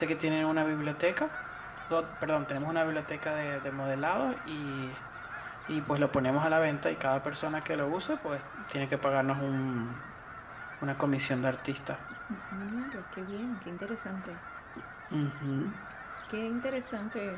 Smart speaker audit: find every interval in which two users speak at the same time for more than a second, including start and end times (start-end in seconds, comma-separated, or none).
none